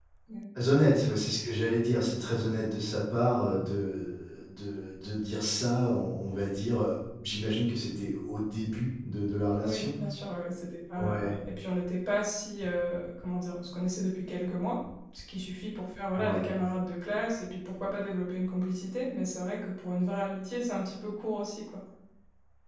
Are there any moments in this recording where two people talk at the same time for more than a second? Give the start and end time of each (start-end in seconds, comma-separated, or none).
none